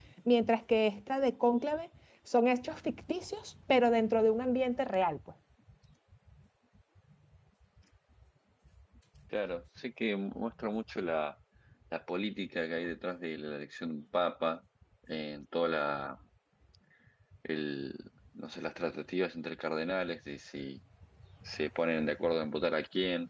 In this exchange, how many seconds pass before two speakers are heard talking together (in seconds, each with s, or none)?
none